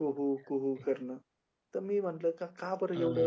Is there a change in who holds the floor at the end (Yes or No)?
No